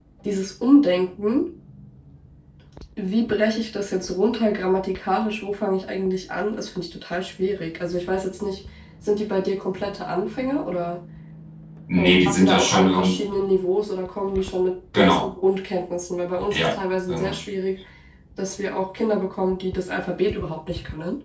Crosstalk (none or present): present